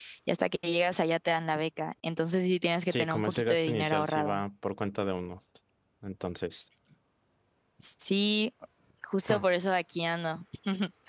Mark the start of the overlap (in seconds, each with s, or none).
2.9 s